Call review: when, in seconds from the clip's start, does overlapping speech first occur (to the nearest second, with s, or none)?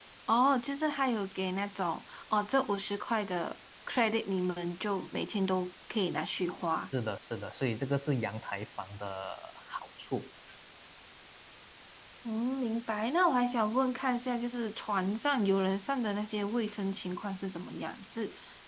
none